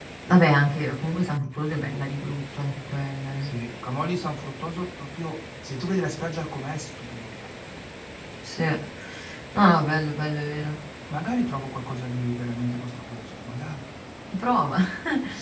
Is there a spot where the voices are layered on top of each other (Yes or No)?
No